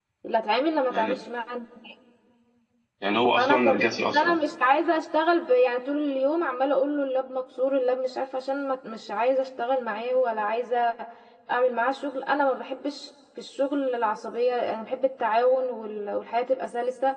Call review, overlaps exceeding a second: none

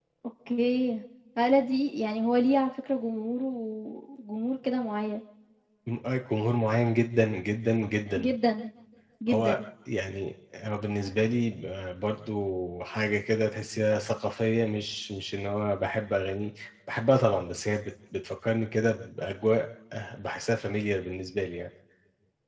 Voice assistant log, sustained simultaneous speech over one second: none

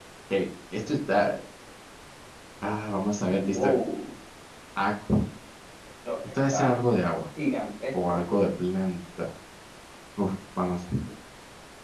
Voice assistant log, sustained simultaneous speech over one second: none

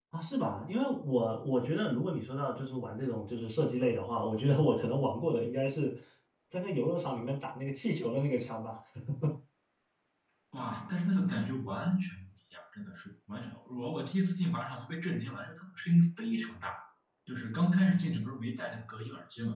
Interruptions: none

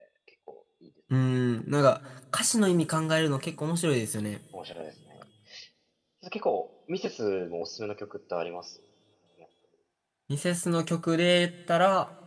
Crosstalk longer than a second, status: none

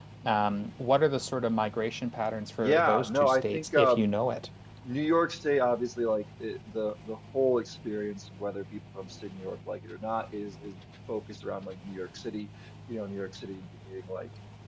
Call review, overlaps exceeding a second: present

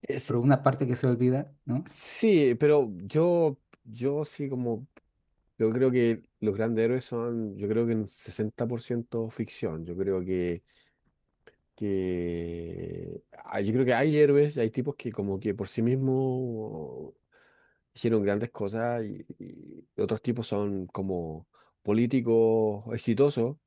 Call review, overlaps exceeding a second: none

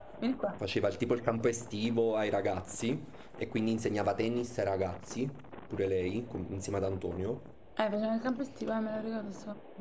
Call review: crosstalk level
none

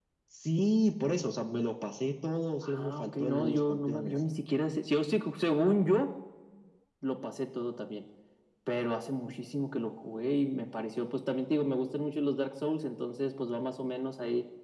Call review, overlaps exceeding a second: present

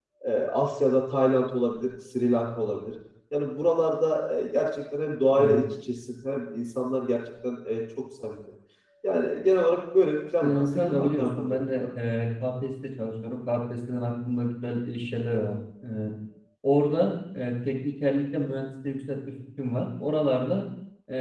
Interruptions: present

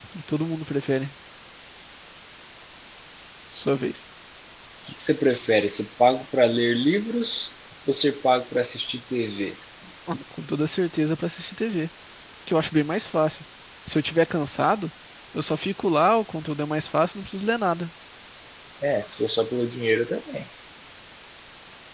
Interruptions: none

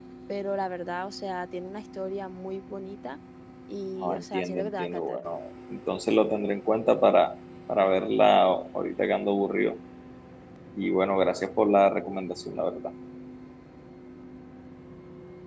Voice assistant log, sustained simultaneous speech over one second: present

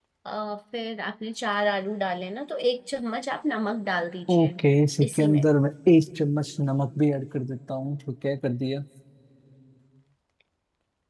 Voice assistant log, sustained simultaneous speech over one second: none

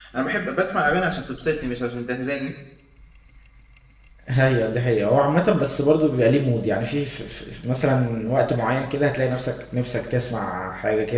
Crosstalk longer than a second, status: none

